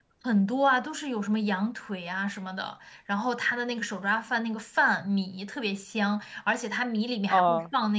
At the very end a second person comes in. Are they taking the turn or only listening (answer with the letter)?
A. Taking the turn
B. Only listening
B